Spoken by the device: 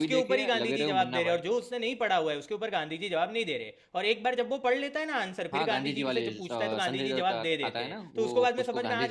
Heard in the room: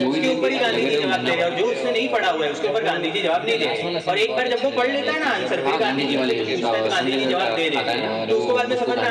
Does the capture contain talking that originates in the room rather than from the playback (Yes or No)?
Yes